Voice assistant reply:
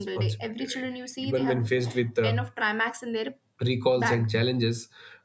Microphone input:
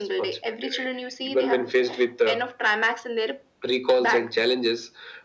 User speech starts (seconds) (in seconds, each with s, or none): none